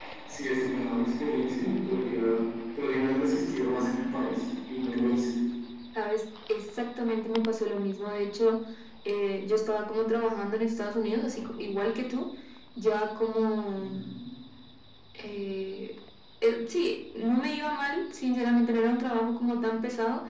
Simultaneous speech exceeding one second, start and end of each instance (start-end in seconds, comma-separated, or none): none